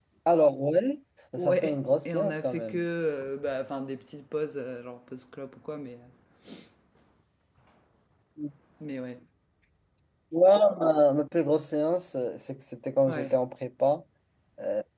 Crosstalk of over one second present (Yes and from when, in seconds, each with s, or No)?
Yes, from 1.4 s